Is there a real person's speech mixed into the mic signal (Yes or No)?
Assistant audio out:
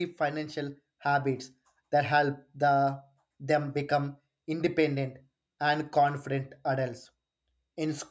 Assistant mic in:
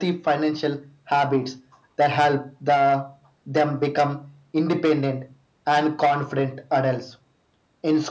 No